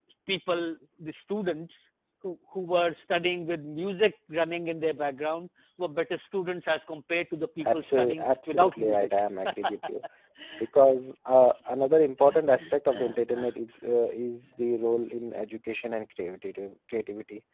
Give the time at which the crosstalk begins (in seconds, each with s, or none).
7.6 s